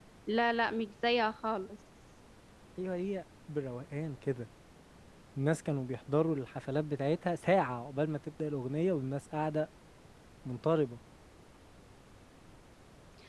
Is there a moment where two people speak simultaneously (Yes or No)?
No